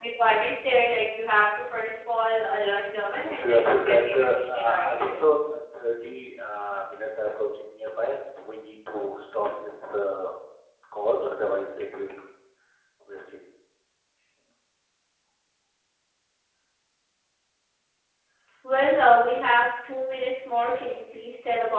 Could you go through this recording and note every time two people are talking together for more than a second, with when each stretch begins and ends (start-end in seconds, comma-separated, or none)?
3.2-5.1